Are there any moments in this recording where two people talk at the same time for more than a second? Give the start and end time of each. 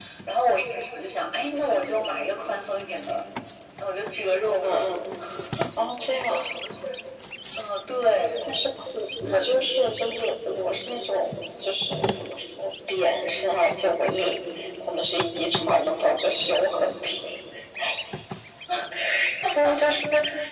none

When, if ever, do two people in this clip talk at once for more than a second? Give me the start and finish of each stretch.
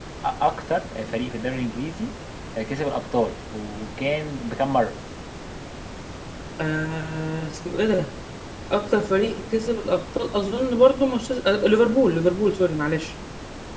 none

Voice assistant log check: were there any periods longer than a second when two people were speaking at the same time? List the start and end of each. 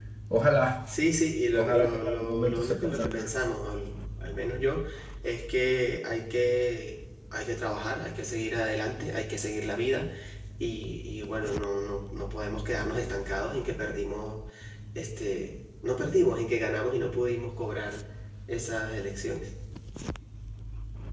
1.5-3.3

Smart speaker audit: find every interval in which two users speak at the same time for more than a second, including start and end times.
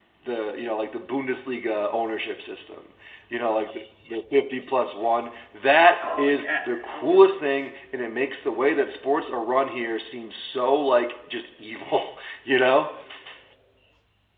6.0-7.4

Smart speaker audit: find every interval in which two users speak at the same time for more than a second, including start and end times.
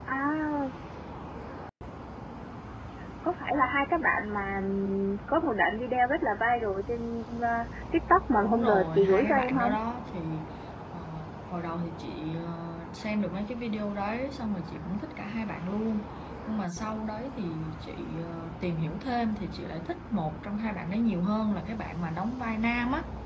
8.4-9.8

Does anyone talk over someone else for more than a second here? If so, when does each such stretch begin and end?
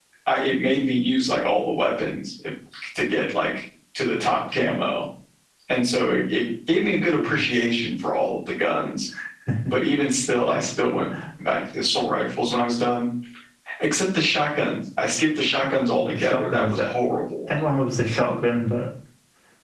15.6-16.9

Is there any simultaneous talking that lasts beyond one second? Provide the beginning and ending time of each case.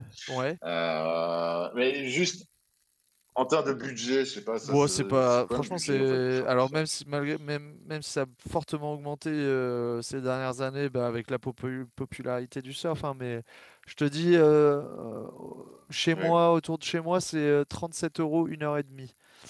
4.6-6.8

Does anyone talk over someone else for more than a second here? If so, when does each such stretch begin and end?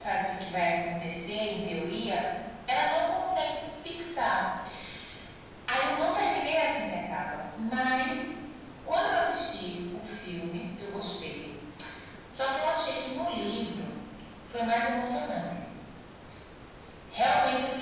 none

